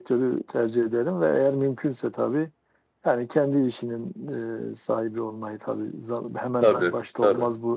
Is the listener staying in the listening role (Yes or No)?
Yes